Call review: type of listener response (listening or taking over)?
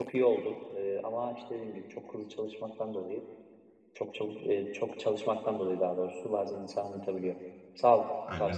taking over